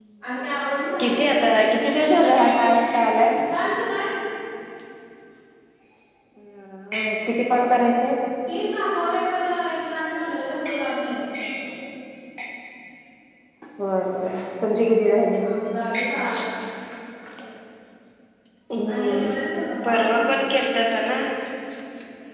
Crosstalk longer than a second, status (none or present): none